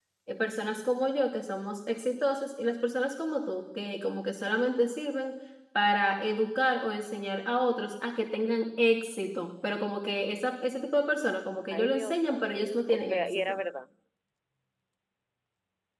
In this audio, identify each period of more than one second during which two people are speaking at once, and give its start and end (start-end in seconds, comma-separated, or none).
11.7-13.6